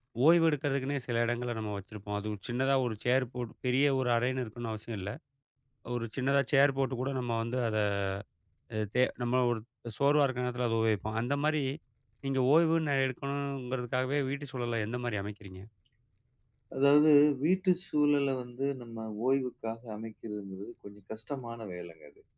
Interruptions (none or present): none